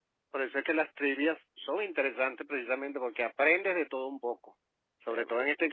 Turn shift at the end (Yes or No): No